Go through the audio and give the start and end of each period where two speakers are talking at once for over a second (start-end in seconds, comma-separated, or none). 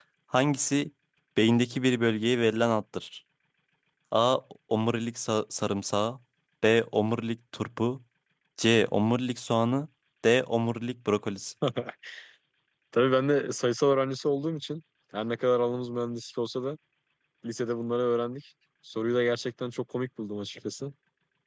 none